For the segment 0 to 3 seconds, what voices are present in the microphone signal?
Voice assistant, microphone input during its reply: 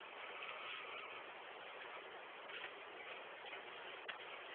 neither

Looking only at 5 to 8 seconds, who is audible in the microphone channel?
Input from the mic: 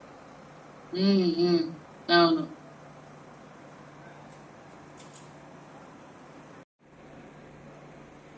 neither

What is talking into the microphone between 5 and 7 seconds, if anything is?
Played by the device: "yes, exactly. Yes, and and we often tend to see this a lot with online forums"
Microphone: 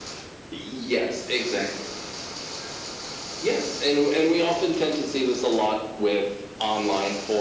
echo only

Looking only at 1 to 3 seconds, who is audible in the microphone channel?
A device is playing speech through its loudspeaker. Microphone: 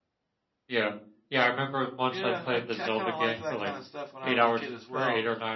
both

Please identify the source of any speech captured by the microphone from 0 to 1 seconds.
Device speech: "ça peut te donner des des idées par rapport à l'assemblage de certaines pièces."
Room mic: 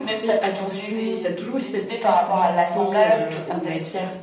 both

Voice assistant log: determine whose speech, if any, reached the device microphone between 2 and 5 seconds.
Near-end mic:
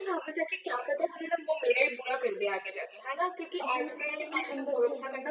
both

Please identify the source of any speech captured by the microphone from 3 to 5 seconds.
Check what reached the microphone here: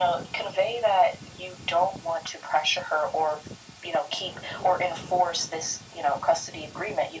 echo only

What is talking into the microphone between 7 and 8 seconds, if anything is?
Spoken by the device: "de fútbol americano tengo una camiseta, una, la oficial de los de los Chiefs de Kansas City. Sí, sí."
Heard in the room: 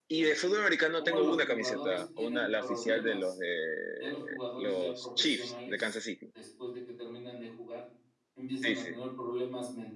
user only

